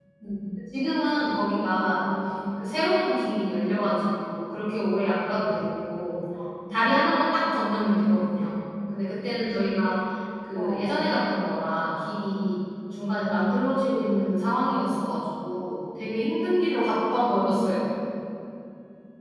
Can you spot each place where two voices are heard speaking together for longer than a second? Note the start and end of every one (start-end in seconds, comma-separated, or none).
none